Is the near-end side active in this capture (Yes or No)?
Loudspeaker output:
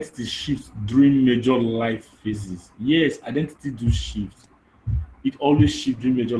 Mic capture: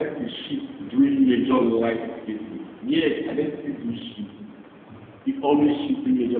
No